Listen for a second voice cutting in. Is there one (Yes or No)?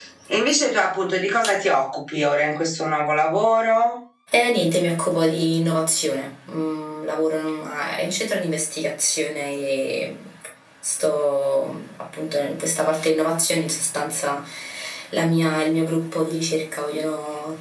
No